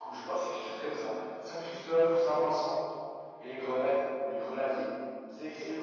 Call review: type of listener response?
taking over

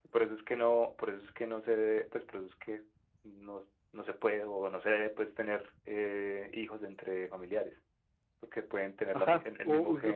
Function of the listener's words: taking over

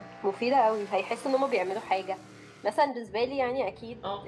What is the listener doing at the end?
listening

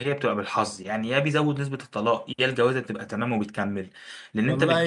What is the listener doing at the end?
taking over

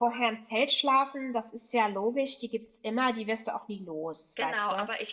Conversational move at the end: taking over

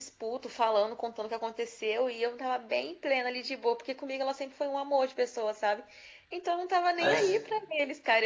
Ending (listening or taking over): listening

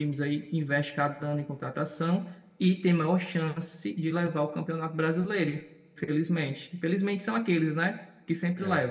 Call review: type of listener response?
listening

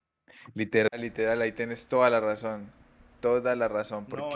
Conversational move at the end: taking over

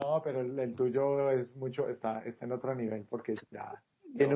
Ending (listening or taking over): listening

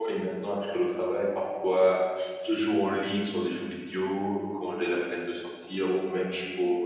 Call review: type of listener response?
listening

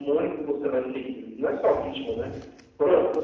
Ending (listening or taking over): listening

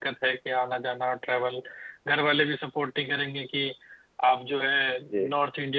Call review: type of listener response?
listening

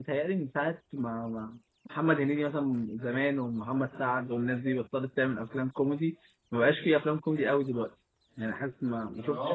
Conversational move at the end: taking over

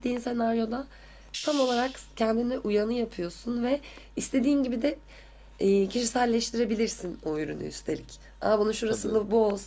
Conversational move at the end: listening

